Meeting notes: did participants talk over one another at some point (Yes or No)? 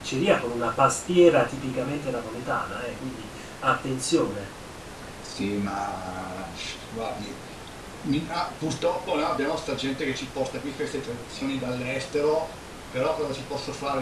No